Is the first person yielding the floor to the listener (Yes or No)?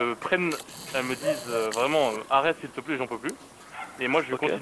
No